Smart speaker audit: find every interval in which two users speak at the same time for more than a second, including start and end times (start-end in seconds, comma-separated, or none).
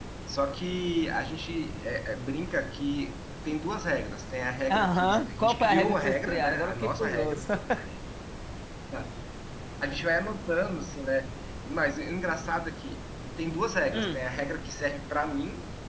4.7-7.5